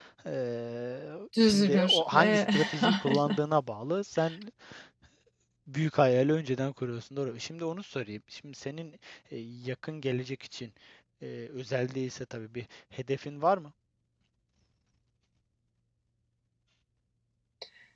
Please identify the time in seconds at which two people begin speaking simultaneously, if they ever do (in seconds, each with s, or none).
1.4 s